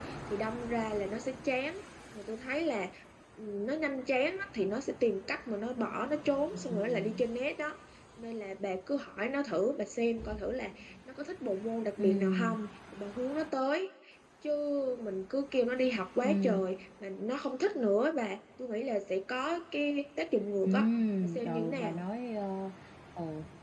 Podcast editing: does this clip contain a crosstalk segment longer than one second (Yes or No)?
Yes